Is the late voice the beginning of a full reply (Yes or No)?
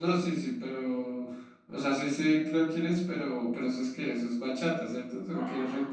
Yes